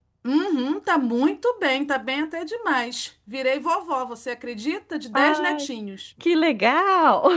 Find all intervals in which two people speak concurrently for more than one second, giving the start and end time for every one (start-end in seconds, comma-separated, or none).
none